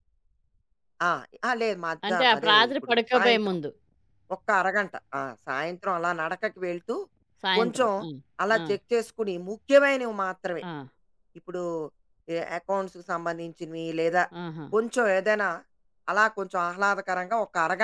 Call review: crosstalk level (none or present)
present